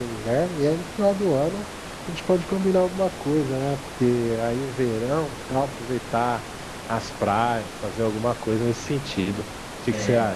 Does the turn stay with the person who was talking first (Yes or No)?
No